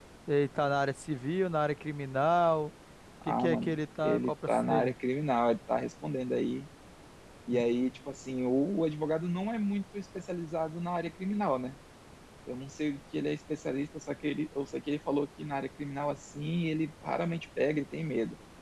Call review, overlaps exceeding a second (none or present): present